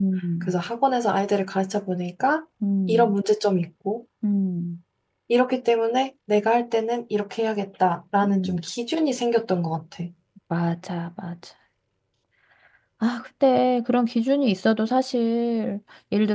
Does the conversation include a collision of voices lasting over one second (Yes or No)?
No